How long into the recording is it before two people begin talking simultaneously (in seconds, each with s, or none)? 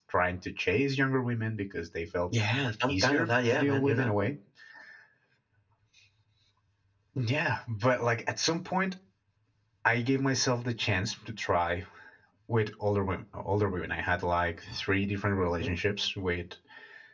2.9 s